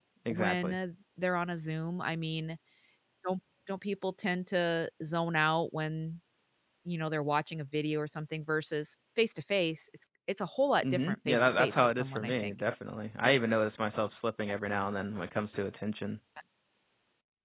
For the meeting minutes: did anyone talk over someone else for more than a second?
Yes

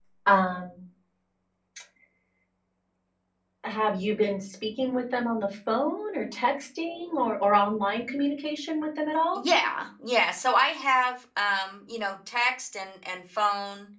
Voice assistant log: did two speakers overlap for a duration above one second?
No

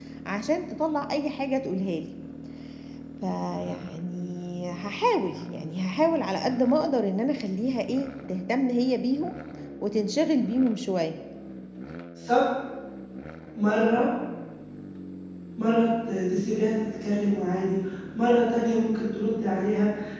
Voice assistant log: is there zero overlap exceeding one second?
Yes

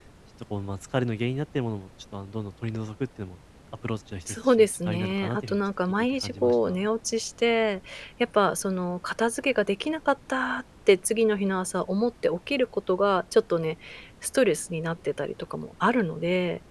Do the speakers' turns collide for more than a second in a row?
Yes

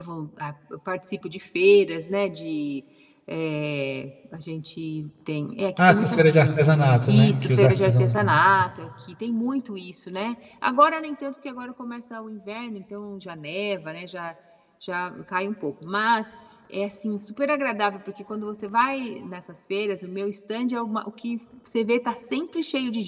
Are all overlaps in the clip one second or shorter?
No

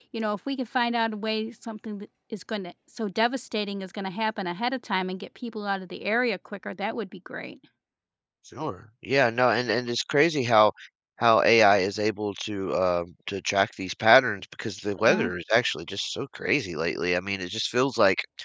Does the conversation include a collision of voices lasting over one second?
No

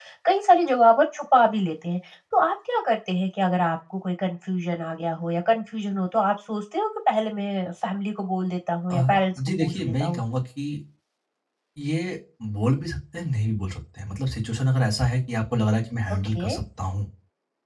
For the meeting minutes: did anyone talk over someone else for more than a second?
Yes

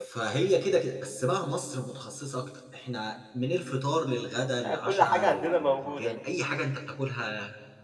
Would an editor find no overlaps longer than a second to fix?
No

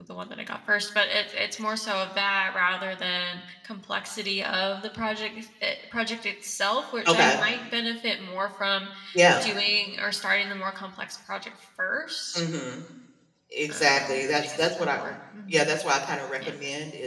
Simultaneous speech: Yes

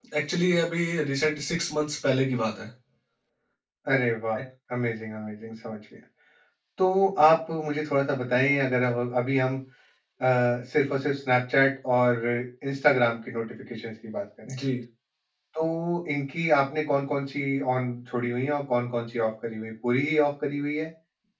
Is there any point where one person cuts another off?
No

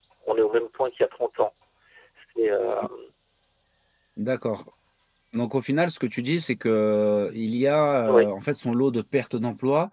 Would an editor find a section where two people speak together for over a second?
No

